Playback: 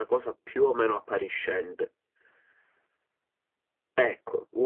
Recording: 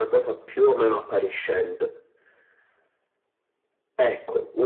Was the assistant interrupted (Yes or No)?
No